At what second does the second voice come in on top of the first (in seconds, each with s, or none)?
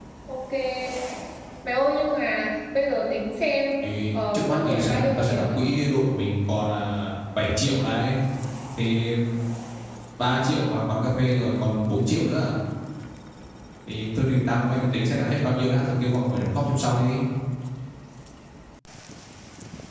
4.3 s